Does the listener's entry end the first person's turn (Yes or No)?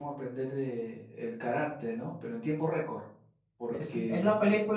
Yes